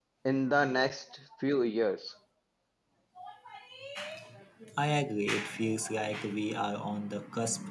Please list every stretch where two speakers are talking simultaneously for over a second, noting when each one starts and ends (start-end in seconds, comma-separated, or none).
none